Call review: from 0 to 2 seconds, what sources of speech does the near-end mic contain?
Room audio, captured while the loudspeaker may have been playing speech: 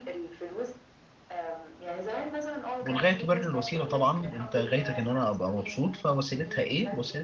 echo only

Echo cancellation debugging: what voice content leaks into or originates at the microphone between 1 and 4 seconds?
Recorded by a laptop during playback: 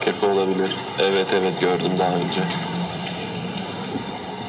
echo only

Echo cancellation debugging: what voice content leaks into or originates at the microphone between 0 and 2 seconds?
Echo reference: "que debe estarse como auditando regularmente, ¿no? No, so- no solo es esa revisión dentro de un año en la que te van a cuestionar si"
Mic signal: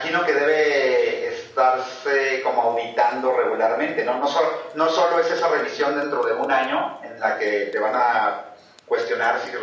echo only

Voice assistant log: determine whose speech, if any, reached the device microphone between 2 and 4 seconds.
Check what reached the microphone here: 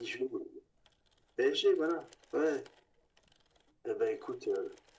echo only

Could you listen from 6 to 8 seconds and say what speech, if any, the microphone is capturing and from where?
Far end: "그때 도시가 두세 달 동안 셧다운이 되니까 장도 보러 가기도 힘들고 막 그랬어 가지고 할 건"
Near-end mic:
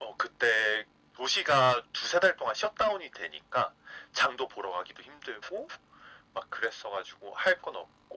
echo only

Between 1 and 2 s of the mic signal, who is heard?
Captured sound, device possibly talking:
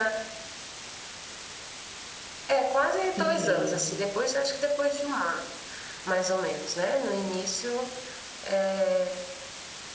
neither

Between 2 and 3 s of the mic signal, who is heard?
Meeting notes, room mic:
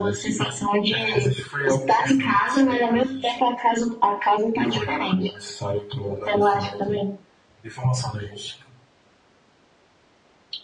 echo only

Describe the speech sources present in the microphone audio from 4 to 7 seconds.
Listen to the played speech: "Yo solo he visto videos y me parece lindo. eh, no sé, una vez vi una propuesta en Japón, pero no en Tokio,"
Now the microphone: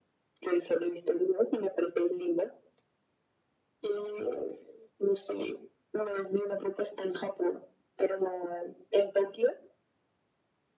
echo only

